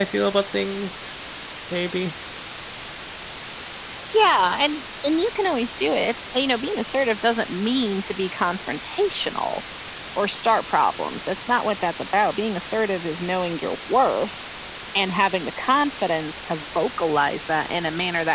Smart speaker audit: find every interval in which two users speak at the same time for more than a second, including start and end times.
none

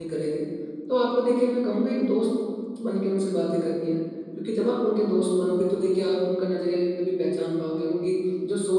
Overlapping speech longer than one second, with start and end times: none

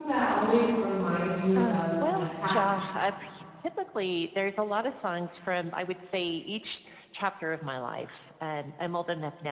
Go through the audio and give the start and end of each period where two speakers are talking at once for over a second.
1.5-3.0

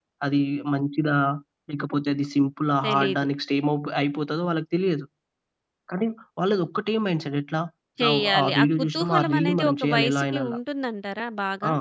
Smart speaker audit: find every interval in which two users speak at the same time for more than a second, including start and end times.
8.1-10.6

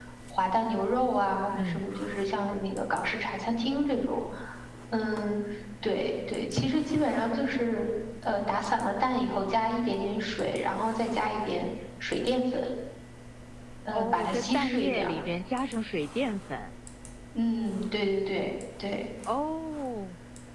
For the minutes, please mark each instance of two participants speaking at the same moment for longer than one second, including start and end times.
13.9-15.1

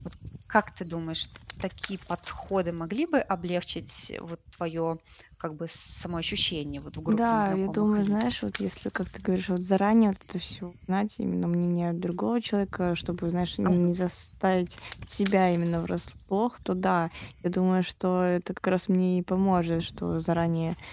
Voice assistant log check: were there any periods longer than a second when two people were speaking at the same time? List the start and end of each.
7.1-8.4

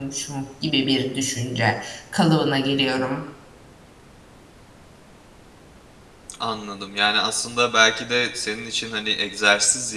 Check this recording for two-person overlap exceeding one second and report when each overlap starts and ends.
none

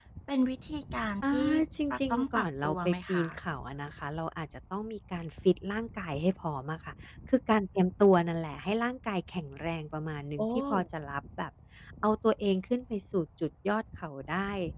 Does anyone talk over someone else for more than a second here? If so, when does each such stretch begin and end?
1.9-3.2

